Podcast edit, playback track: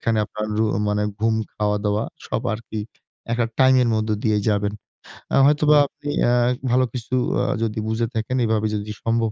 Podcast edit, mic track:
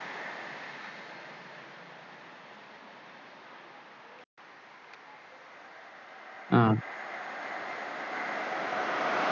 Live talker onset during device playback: 6.5 s

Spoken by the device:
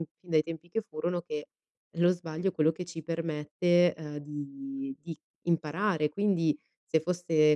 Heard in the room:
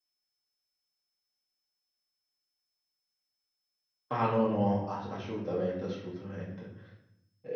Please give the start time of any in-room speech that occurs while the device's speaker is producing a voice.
4.1 s

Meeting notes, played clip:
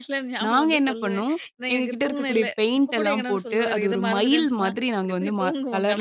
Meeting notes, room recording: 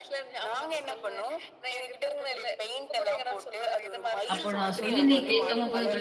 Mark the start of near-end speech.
4.3 s

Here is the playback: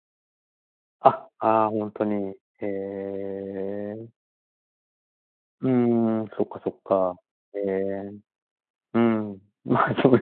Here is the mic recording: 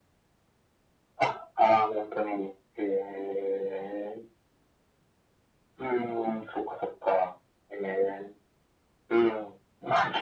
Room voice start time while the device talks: none

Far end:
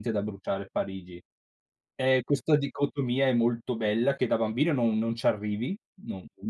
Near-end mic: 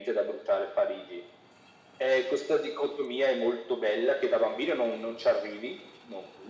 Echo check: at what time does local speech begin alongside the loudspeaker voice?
none

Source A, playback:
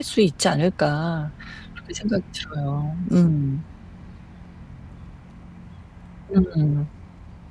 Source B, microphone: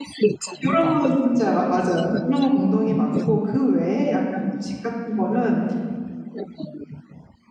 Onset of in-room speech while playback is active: 0.6 s

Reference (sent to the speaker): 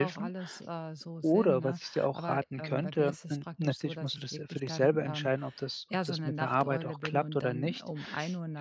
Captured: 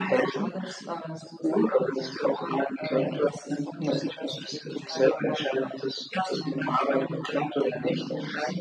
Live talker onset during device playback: none

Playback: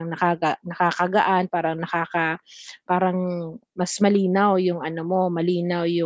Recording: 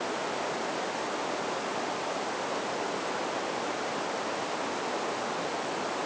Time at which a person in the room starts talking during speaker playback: none

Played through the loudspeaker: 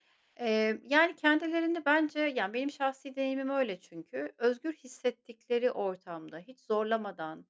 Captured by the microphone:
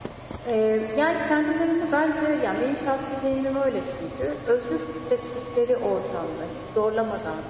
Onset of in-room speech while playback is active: none

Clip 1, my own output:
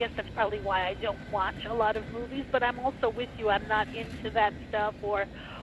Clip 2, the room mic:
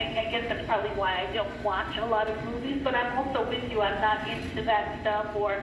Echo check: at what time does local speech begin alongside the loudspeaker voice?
none

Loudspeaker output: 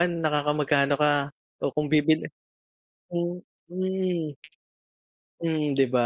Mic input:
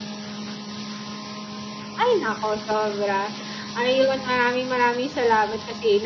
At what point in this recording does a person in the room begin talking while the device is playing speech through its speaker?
2.0 s

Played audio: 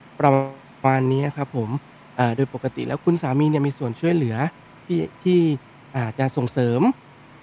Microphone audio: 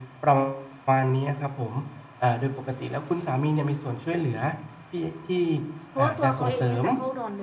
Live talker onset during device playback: 5.9 s

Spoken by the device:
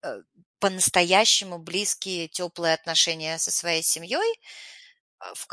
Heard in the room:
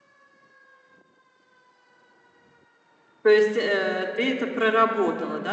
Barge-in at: 3.2 s

